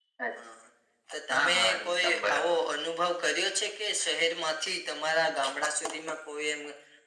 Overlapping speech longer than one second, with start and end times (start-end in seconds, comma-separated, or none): 1.3-2.6